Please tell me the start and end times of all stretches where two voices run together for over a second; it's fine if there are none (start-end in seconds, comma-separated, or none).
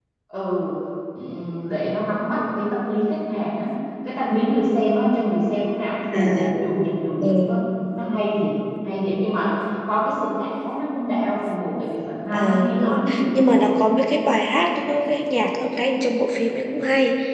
12.3-13.6